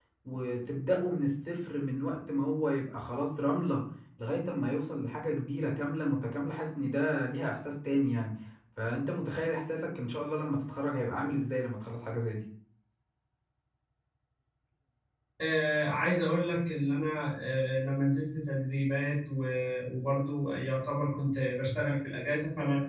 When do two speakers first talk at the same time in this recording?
none

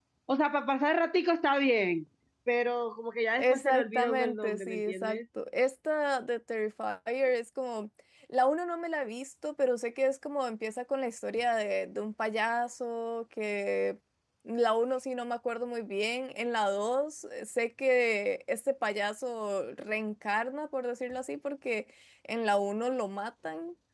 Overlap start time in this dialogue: 3.4 s

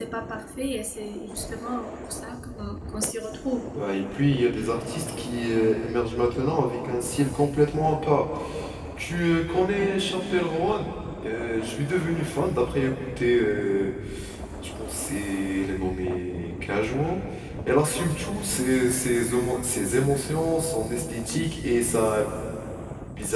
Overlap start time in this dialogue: none

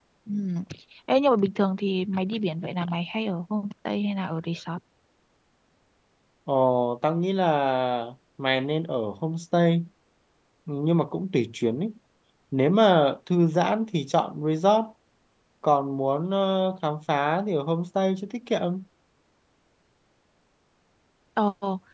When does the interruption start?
none

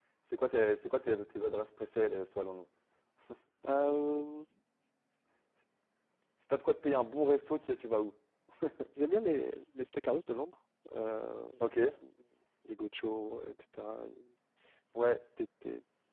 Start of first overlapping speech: none

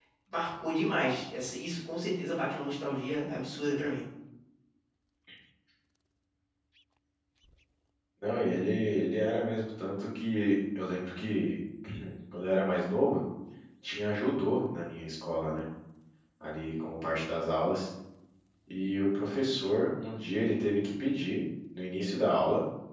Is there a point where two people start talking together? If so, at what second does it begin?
none

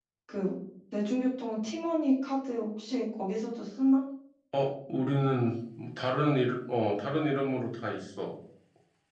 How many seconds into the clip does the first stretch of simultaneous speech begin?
none

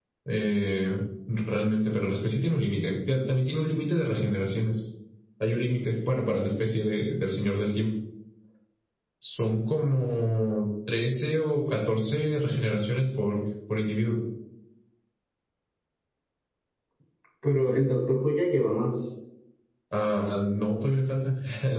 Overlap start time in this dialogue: none

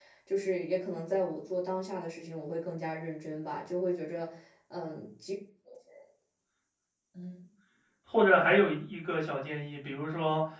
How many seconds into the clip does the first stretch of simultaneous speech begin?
none

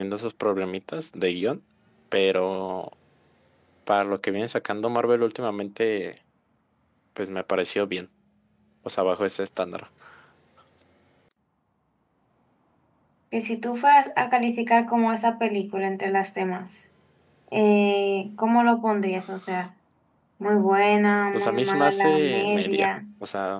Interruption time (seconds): 21.3 s

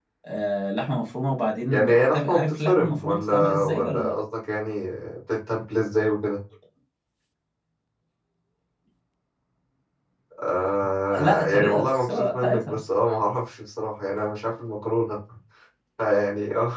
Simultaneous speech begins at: 1.7 s

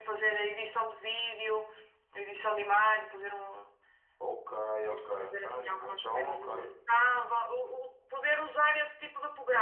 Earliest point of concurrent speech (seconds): 4.9 s

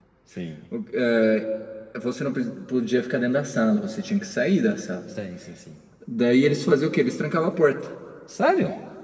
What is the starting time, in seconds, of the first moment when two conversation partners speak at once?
none

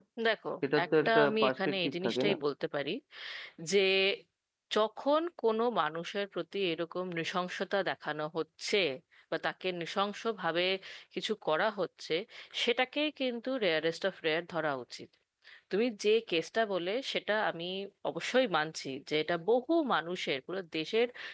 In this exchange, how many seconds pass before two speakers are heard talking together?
0.8 s

